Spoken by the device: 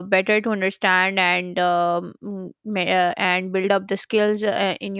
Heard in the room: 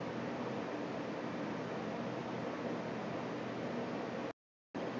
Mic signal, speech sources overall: neither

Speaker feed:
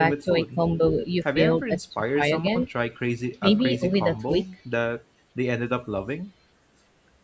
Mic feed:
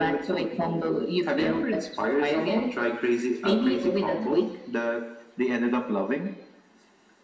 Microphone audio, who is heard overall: echo only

